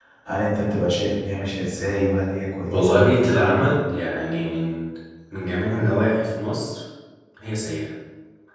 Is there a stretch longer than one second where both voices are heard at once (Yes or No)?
Yes